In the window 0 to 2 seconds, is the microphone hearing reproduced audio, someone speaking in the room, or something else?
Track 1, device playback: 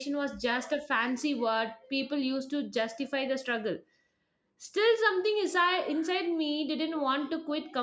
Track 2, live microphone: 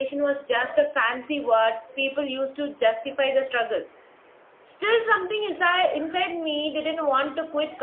echo only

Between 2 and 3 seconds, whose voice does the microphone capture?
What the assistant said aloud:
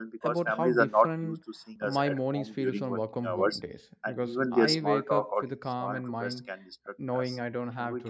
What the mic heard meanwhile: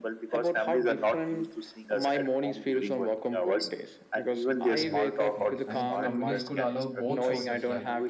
echo only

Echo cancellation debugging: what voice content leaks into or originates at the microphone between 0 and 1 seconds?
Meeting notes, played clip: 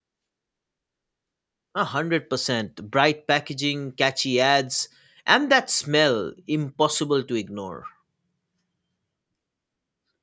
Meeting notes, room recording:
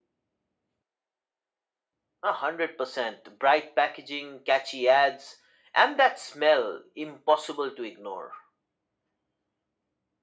neither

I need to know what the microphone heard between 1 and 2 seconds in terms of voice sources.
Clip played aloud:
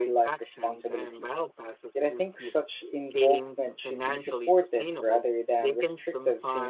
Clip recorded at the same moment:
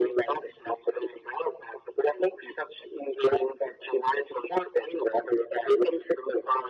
echo only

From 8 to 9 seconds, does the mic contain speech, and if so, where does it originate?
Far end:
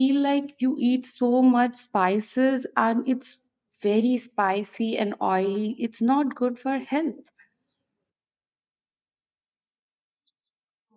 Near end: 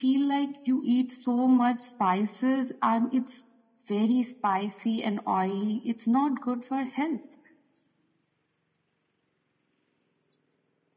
neither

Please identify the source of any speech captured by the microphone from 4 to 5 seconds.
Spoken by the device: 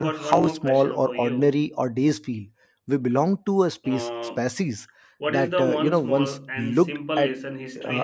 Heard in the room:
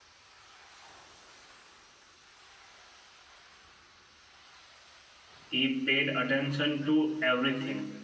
neither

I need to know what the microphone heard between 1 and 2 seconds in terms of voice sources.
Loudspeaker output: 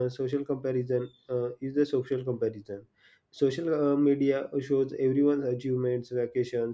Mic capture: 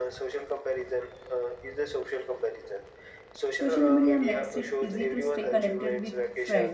echo only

